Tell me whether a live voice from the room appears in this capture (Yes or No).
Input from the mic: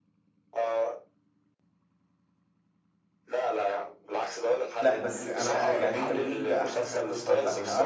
Yes